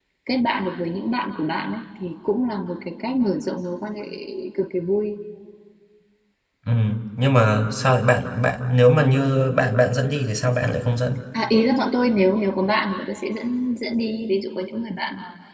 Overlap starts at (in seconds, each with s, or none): none